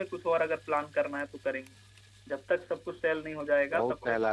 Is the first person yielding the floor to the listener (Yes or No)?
Yes